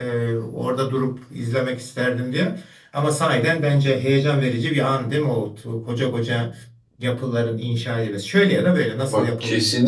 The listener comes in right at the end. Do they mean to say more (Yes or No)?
Yes